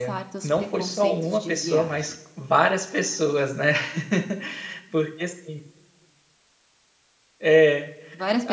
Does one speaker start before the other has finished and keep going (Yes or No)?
Yes